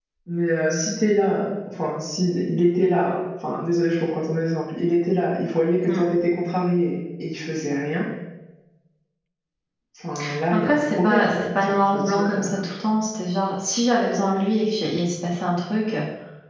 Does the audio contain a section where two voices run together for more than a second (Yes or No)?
Yes